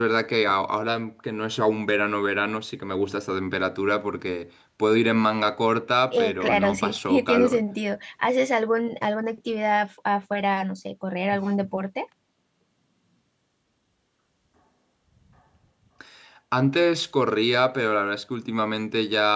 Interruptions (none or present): present